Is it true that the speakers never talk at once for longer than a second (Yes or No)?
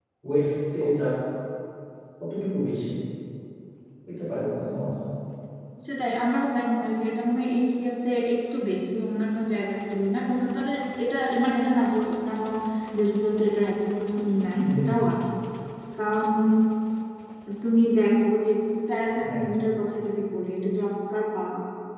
Yes